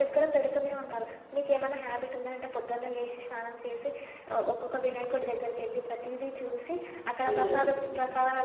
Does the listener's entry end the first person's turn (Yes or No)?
No